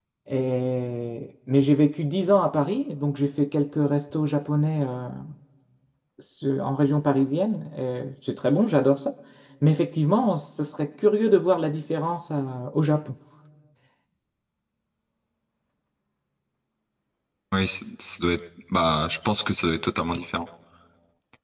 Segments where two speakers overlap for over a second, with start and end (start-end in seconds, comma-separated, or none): none